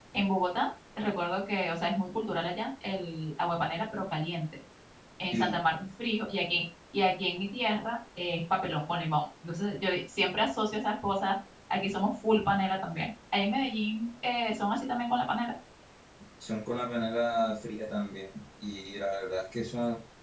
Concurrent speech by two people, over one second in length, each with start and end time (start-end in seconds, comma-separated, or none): none